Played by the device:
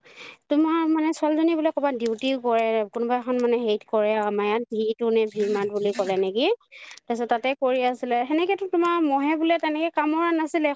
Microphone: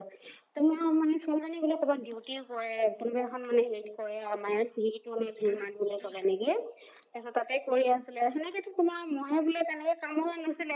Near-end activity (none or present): none